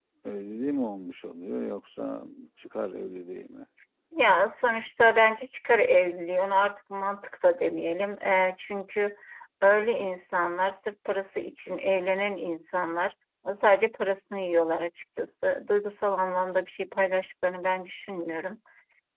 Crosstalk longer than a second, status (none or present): none